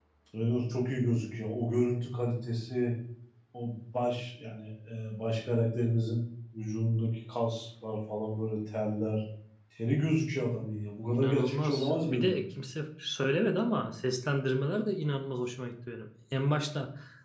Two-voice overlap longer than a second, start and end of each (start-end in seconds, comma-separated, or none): 11.1-12.3